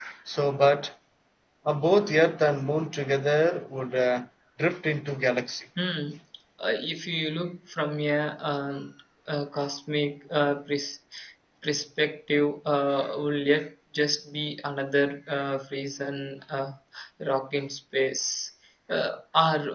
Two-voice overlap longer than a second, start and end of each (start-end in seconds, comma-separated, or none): none